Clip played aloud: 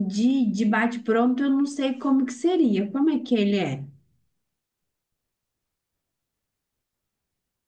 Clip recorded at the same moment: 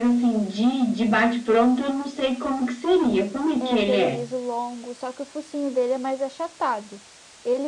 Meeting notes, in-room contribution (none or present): present